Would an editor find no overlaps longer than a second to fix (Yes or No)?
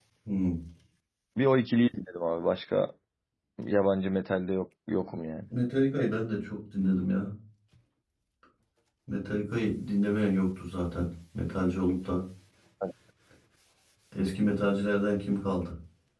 Yes